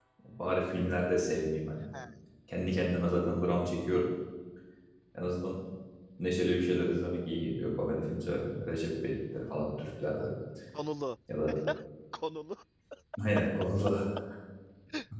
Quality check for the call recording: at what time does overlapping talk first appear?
none

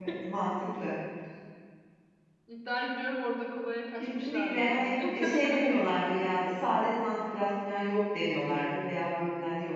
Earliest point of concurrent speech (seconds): 4.0 s

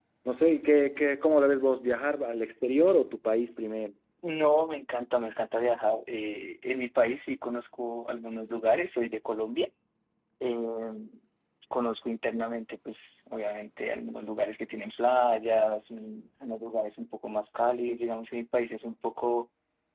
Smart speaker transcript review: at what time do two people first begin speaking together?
none

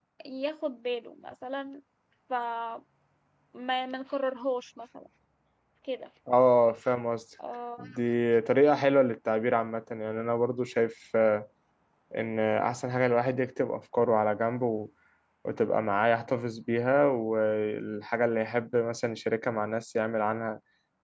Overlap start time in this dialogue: none

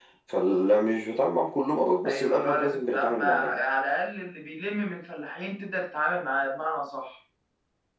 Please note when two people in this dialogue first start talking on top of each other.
2.0 s

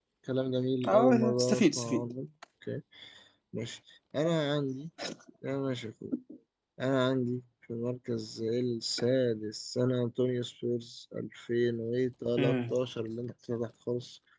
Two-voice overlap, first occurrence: 0.9 s

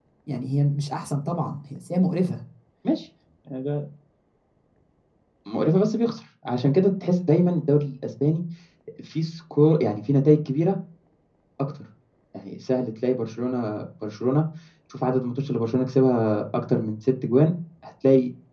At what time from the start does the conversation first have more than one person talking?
none

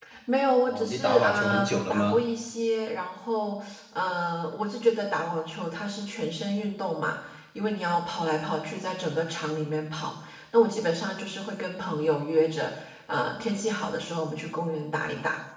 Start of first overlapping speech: 0.7 s

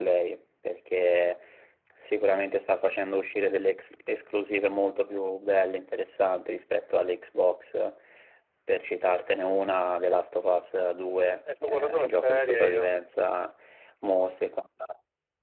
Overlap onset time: 11.5 s

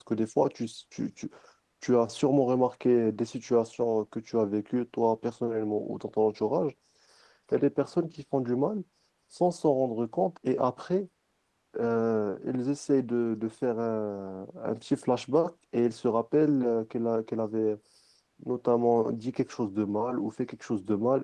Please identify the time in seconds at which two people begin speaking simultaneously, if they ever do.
none

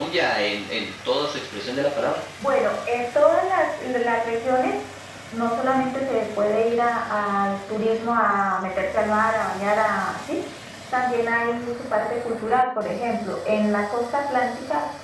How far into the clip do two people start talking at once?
none

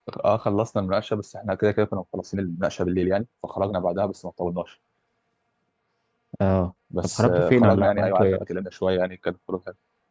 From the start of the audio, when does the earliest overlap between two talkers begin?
7.2 s

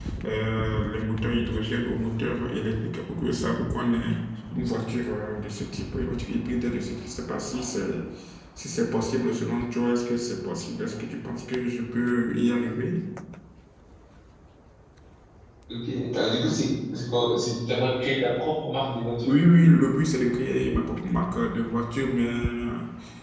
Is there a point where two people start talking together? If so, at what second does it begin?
none

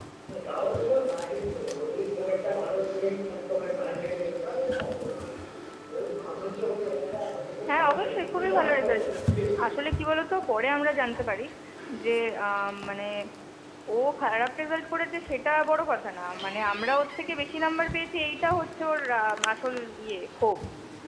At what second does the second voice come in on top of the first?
7.7 s

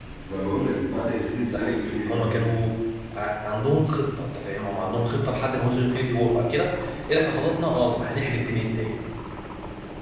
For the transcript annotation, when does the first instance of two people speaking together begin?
1.4 s

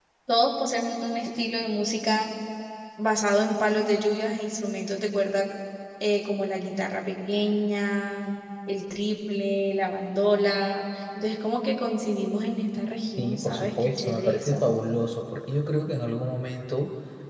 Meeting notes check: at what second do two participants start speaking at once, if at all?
13.2 s

